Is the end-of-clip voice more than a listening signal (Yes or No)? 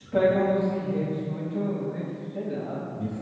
Yes